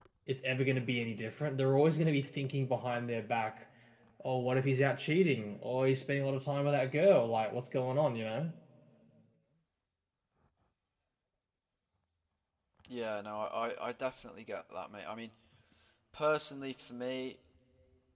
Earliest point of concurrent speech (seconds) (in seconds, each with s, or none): none